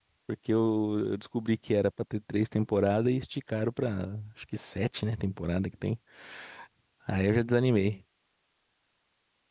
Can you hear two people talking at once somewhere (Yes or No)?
No